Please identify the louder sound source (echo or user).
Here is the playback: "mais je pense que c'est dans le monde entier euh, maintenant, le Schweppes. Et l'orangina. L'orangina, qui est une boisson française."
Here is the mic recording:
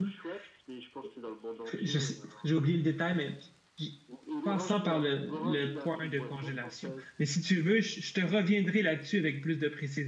user